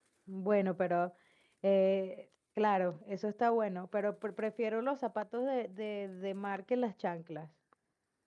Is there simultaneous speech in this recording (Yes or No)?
No